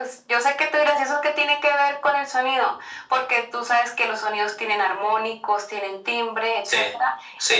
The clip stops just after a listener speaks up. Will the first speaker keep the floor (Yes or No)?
No